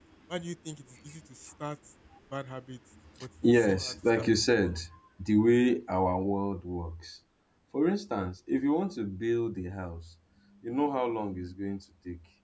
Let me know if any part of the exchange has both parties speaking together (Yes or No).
Yes